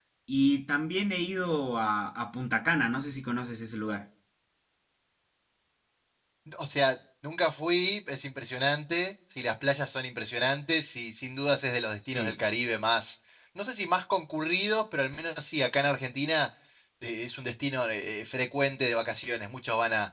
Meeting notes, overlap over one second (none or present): none